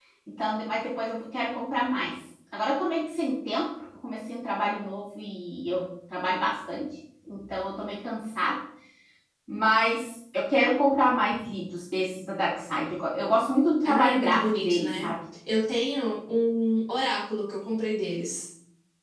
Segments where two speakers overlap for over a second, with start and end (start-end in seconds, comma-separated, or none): 13.8-15.1